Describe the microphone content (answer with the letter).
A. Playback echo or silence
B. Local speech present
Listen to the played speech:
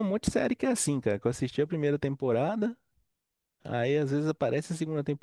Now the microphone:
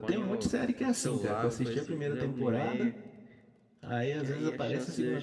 B